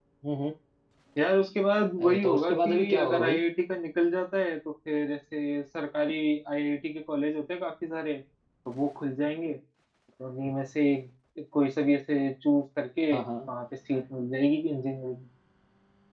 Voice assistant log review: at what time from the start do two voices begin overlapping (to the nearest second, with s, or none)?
2 s